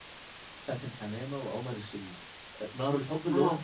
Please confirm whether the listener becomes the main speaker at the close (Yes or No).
No